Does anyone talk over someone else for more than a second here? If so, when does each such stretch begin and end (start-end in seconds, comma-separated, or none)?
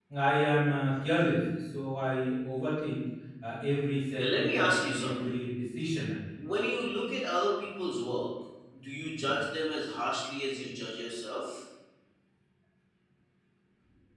4.1-5.3